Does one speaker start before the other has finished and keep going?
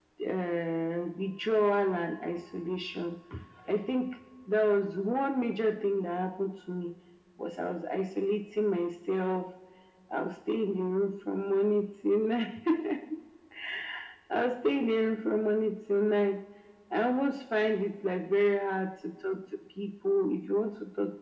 No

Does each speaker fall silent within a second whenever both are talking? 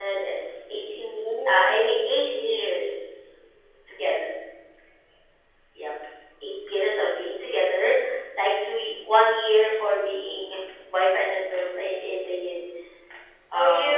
No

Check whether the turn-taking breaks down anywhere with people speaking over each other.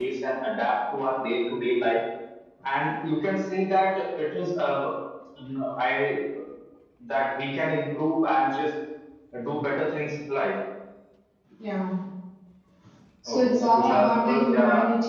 Yes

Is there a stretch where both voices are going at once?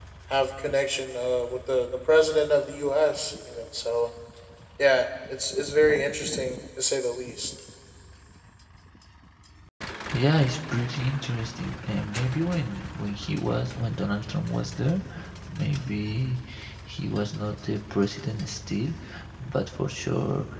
No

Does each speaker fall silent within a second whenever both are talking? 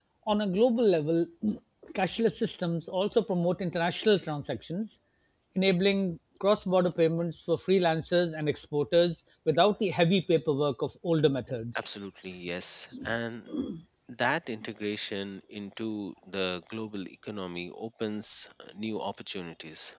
Yes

